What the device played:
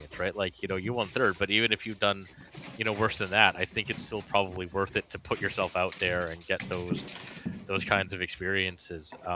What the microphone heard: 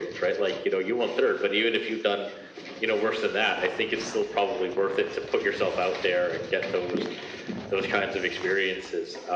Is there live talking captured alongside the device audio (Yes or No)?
No